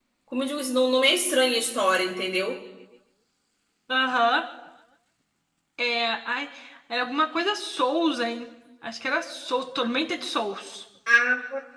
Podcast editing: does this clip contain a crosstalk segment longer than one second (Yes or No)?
No